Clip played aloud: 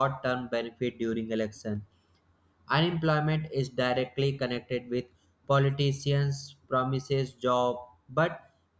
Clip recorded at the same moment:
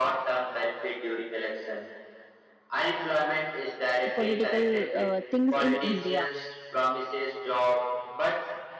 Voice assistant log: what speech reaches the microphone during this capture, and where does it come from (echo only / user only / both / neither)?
both